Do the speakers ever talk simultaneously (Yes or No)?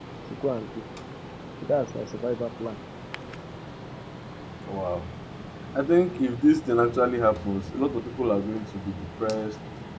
No